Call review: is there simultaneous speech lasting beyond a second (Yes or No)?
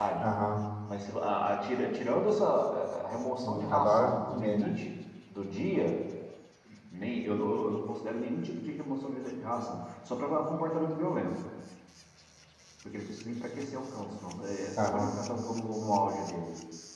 Yes